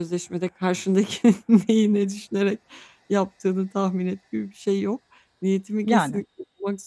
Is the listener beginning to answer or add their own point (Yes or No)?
No